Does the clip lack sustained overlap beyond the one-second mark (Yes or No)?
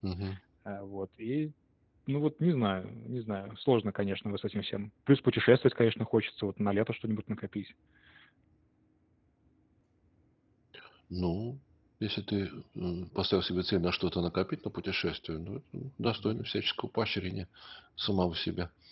Yes